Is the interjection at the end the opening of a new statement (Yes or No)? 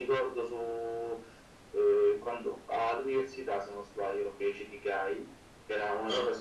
No